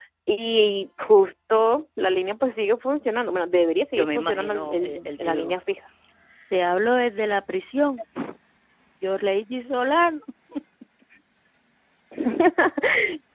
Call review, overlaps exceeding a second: present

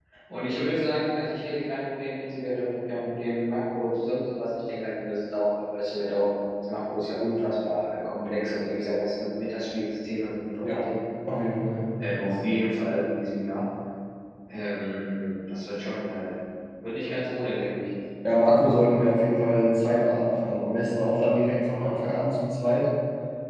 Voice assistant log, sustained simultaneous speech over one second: none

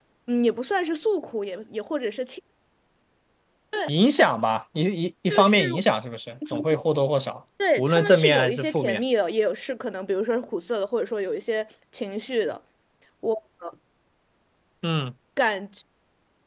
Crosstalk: present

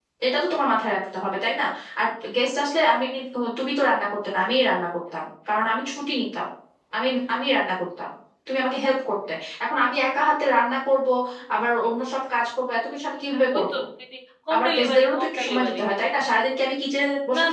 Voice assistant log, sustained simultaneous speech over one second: present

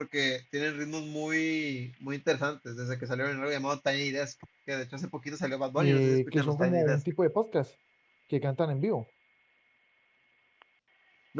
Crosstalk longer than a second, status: present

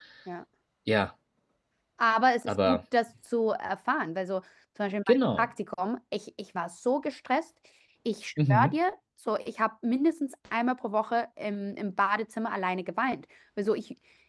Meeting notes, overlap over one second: none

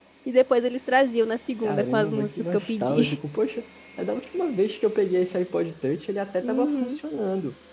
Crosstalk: present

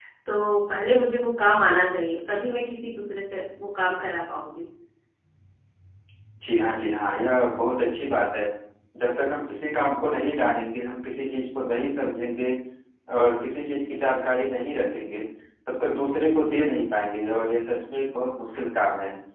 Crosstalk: none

